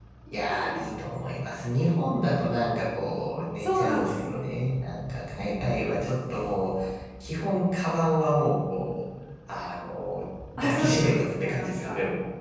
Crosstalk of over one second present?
Yes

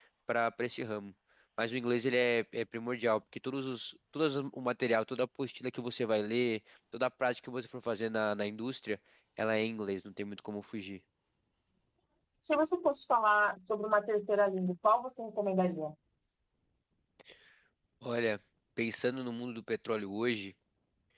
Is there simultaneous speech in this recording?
No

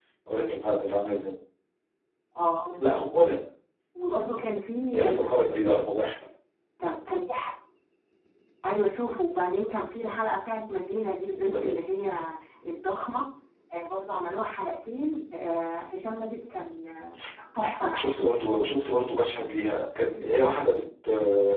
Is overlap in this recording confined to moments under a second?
Yes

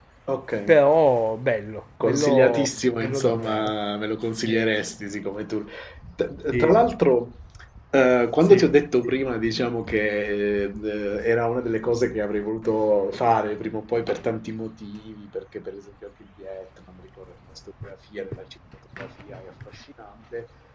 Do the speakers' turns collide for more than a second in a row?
Yes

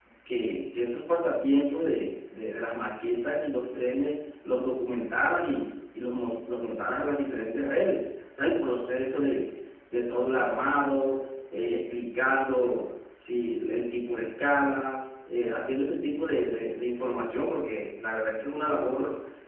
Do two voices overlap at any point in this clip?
No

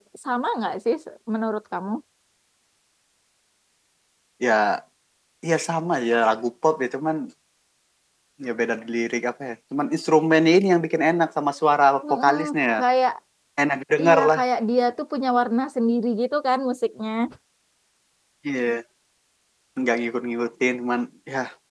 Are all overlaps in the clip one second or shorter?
Yes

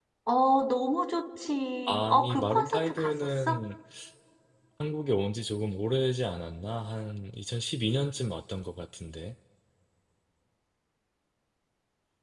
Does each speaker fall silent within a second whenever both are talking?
No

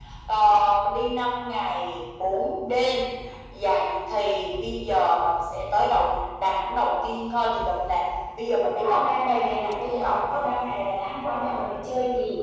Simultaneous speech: Yes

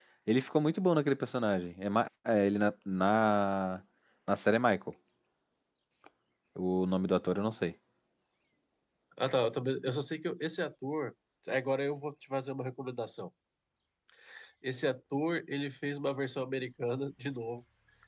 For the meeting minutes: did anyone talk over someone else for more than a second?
No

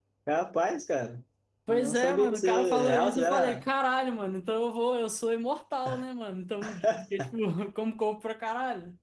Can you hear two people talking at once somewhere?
Yes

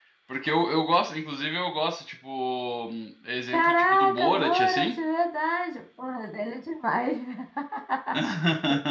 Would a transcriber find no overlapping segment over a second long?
No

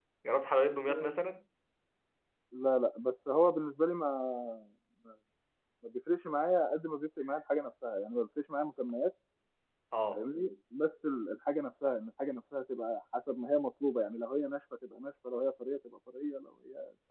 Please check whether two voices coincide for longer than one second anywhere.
No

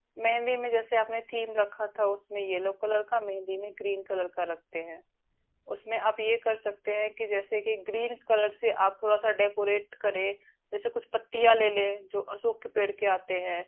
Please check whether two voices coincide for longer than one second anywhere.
No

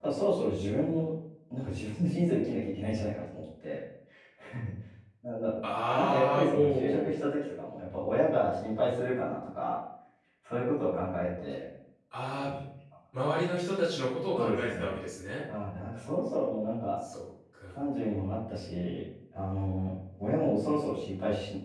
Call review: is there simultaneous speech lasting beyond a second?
Yes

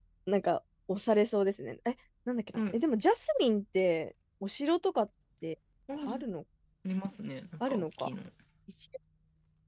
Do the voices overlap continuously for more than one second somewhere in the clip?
No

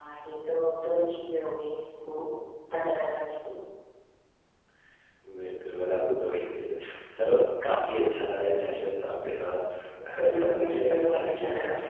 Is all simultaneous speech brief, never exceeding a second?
No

